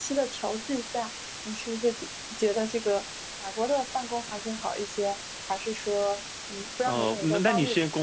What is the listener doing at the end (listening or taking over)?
taking over